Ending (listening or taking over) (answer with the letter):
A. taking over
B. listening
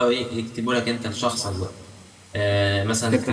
B